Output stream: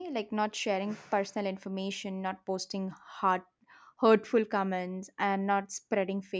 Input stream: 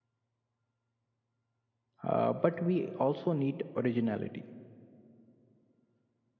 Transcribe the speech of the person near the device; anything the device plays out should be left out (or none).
uh, but we also need originality.